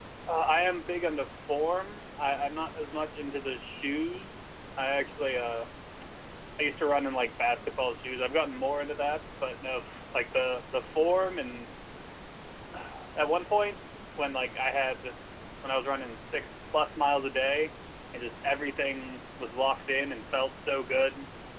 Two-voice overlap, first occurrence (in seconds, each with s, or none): none